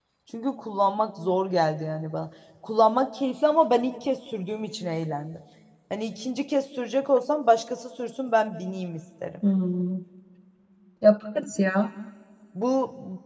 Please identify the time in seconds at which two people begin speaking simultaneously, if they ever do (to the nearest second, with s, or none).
none